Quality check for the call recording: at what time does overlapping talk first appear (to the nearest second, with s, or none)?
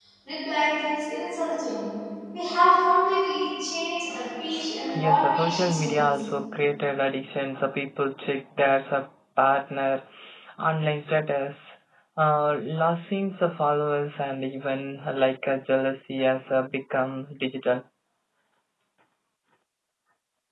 5 s